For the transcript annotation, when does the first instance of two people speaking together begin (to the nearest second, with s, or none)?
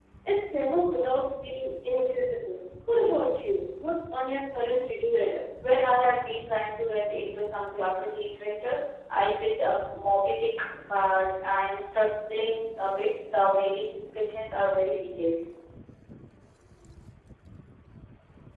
none